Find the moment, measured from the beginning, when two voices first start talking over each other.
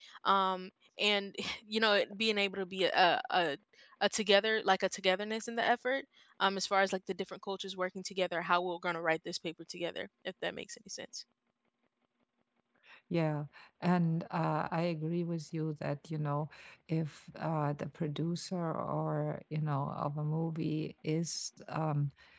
none

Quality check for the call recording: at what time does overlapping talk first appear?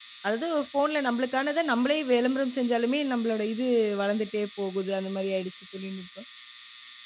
none

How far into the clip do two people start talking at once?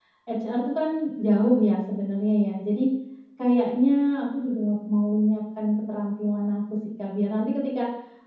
none

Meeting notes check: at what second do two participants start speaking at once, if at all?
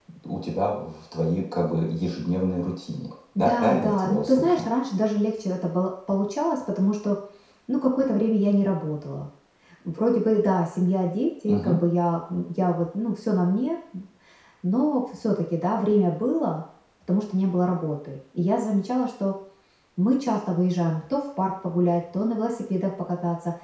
3.4 s

